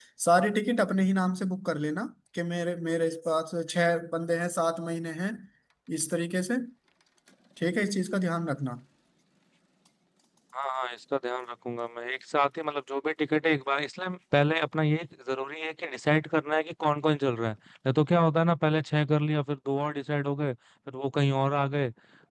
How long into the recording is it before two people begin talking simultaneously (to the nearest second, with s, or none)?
none